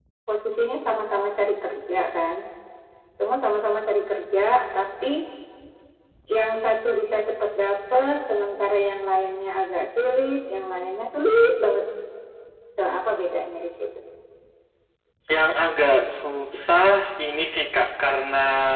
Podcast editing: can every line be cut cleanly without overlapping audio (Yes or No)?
Yes